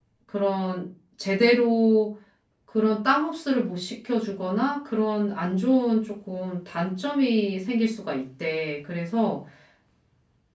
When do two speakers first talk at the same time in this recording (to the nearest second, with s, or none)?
none